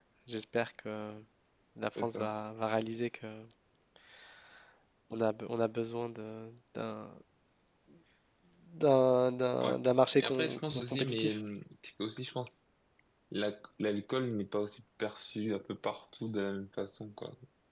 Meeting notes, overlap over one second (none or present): present